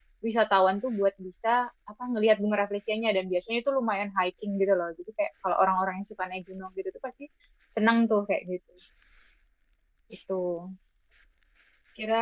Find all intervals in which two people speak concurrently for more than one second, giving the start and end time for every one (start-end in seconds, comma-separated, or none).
none